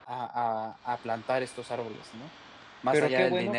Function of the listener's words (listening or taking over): taking over